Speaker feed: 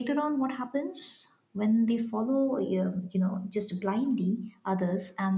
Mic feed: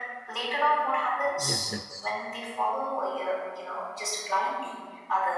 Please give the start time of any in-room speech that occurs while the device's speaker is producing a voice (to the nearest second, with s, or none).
1 s